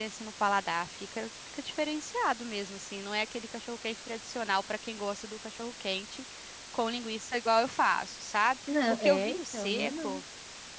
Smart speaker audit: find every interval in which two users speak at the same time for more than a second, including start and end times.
8.9-10.2

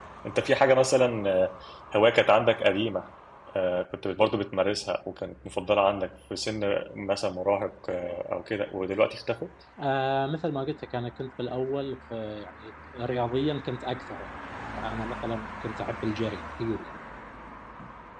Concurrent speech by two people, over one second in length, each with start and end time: none

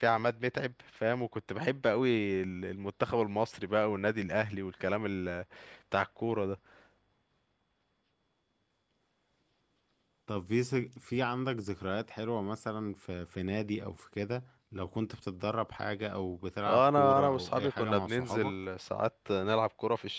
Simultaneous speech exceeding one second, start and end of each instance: 16.7-18.5

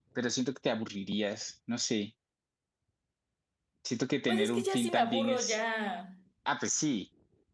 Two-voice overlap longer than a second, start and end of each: 4.3-5.6

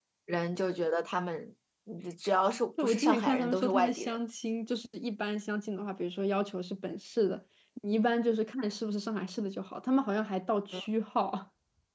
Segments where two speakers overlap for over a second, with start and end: 2.8-4.2

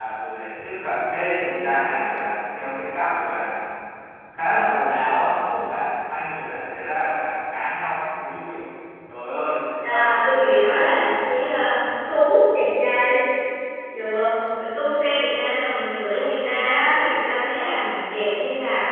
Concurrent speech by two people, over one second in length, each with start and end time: 9.8-11.1

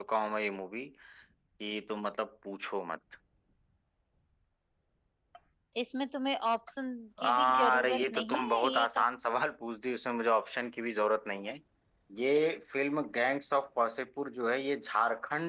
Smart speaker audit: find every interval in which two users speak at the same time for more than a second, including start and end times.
7.2-8.8

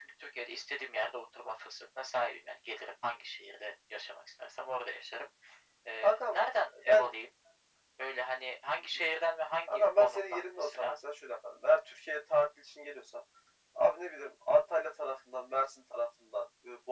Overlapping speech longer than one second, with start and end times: 9.7-11.0

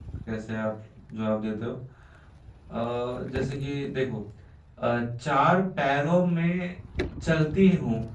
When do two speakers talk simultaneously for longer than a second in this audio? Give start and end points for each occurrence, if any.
none

